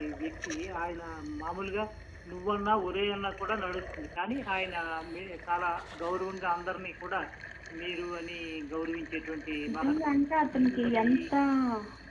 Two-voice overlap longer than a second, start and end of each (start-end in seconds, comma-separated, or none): 9.7-11.0